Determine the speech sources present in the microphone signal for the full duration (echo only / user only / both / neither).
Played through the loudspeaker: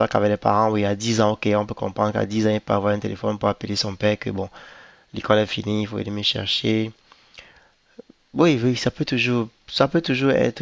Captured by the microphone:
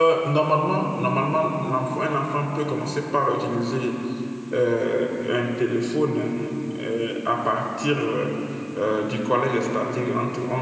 user only